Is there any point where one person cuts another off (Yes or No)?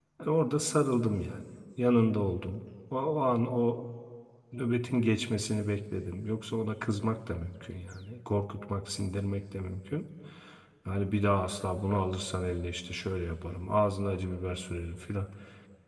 No